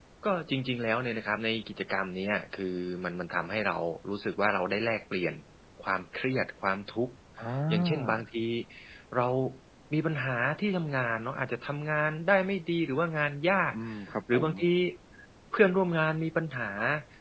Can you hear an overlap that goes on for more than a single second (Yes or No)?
No